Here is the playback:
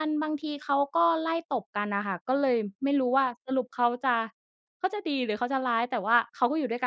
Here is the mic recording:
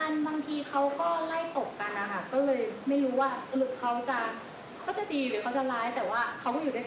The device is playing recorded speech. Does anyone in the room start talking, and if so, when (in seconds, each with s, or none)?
none